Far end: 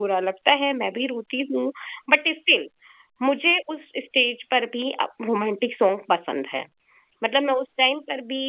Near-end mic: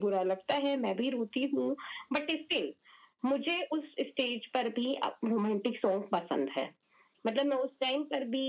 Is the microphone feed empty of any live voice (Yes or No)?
Yes